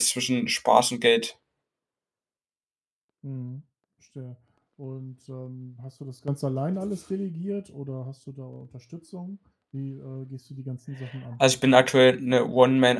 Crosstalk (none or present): none